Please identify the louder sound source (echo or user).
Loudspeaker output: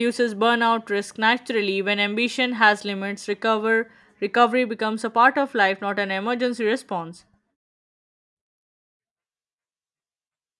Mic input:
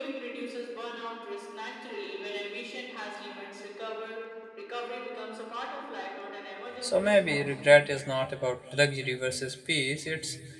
user